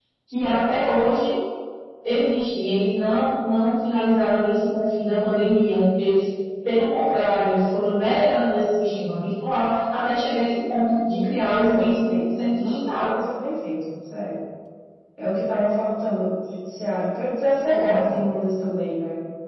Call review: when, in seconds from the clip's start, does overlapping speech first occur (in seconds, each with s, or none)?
11.7 s